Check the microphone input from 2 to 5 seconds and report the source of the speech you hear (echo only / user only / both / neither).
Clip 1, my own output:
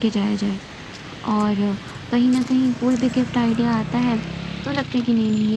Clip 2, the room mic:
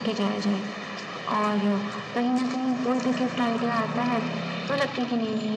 echo only